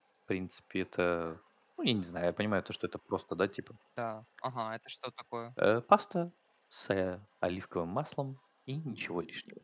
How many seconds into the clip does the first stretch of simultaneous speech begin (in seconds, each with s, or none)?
none